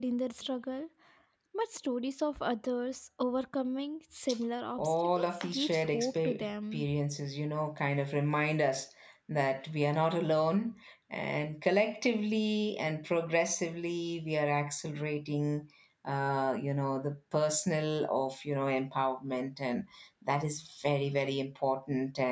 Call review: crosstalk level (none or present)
present